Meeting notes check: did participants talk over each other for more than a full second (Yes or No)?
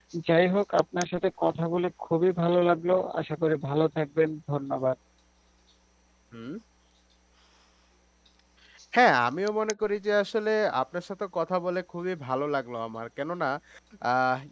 No